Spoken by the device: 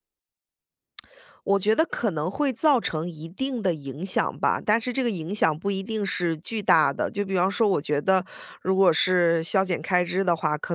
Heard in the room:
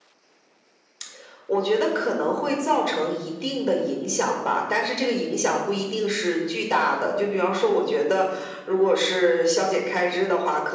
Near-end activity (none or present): none